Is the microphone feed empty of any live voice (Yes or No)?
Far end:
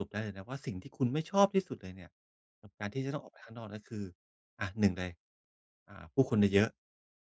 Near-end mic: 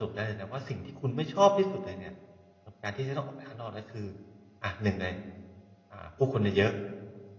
Yes